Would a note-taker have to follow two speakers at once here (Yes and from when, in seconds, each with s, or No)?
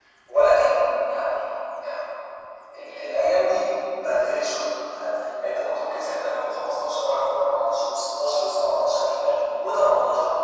No